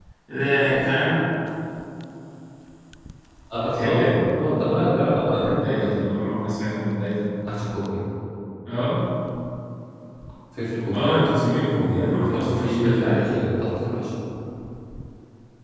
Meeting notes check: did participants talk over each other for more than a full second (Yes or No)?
Yes